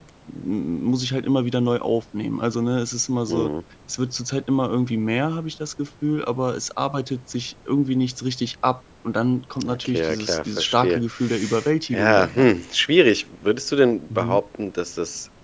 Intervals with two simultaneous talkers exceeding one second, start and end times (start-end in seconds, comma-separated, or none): 9.6-11.0